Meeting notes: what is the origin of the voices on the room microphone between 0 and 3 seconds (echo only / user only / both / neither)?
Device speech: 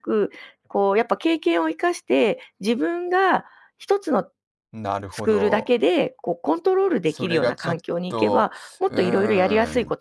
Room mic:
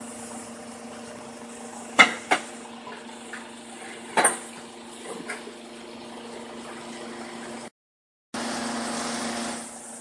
neither